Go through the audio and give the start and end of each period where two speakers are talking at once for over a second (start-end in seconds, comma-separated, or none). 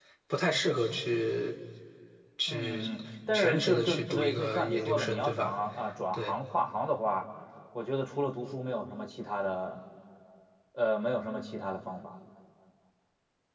3.3-5.5